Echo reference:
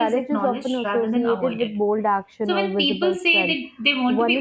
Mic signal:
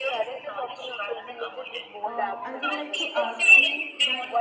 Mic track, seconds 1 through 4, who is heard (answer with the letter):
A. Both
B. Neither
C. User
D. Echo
A